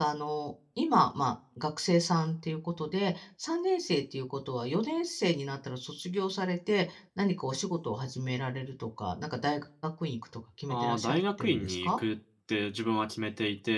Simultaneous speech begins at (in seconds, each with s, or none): 10.7 s